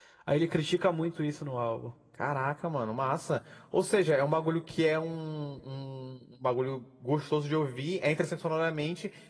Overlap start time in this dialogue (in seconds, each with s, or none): none